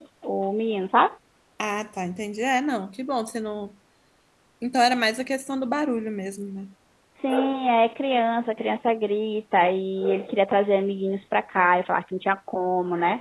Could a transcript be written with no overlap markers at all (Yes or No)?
Yes